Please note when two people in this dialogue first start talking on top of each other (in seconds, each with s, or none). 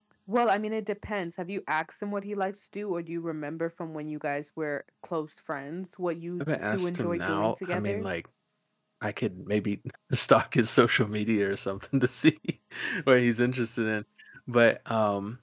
6.4 s